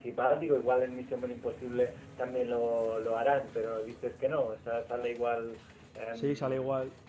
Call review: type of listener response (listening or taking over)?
taking over